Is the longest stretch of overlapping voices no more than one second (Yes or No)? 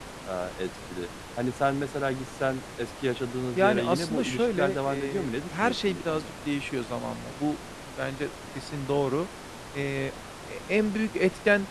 No